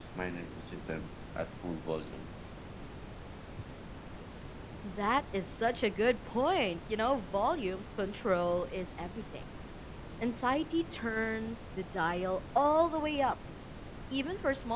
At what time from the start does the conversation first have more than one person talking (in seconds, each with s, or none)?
none